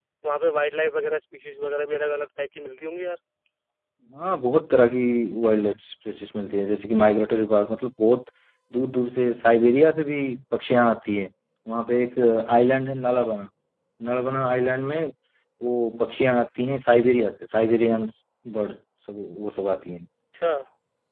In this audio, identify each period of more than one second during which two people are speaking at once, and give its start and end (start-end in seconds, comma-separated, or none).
none